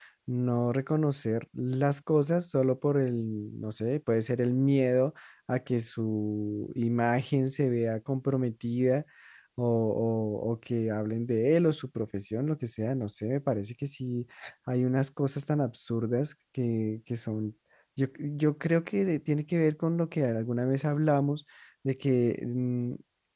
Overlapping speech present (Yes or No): No